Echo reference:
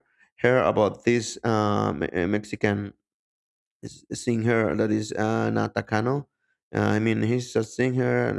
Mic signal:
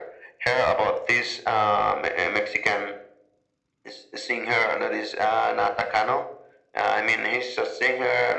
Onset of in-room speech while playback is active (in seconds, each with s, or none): none